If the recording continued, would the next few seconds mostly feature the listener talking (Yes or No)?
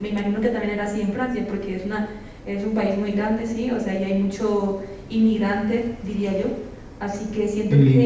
No